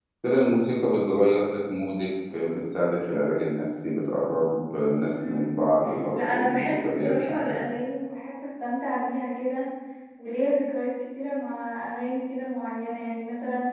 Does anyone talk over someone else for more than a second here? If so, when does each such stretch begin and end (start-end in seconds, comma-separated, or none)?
6.1-7.5